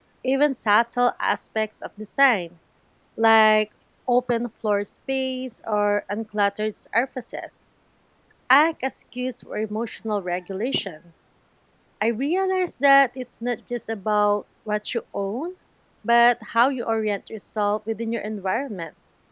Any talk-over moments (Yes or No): No